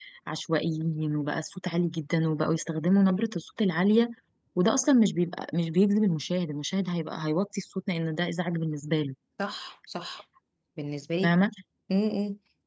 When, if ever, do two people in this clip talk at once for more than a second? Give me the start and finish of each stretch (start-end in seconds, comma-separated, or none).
none